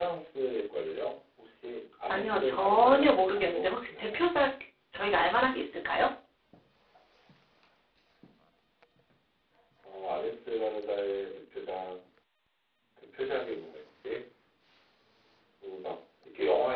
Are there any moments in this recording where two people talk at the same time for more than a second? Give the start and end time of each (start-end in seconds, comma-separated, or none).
2.1-4.2